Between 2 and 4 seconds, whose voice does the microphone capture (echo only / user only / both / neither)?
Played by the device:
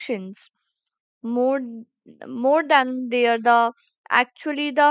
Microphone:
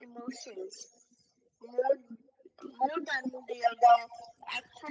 echo only